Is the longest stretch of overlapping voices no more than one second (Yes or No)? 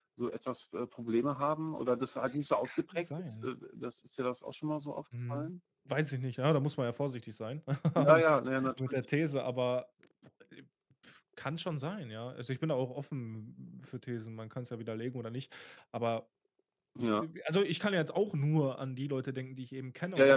No